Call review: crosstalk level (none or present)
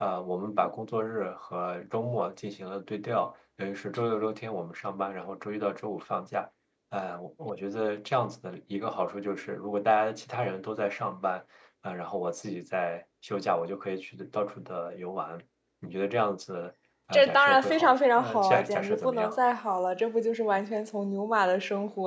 present